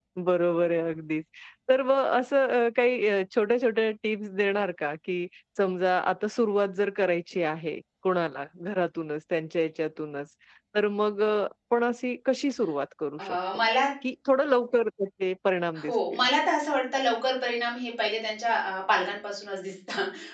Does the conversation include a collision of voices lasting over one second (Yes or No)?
No